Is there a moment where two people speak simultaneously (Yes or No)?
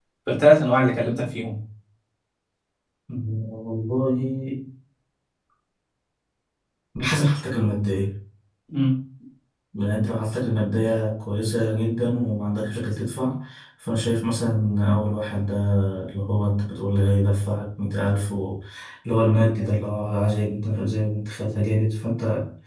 No